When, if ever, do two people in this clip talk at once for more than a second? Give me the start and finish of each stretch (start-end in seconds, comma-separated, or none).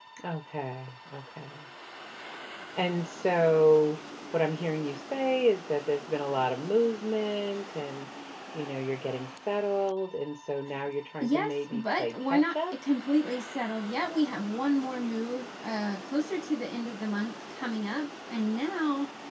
11.2-12.7